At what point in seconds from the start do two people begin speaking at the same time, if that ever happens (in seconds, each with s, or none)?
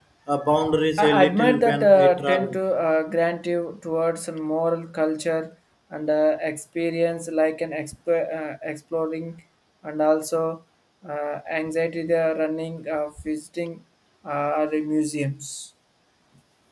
1.0 s